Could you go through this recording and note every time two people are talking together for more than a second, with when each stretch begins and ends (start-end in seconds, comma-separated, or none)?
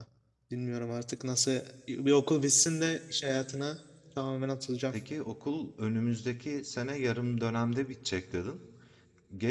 none